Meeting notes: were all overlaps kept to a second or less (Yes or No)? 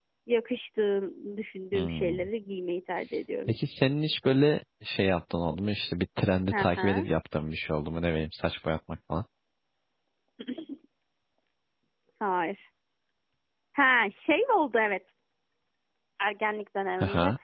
Yes